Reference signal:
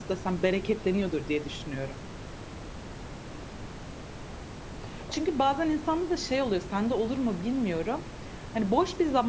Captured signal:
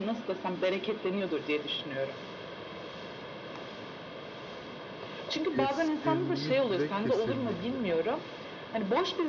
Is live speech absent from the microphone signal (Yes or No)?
No